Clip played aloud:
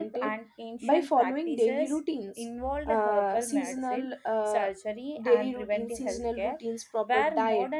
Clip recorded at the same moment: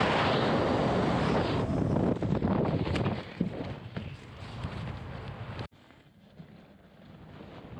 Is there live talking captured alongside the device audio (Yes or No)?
No